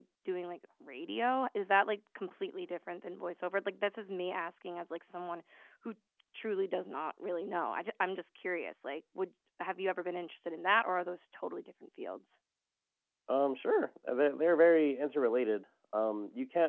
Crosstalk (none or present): none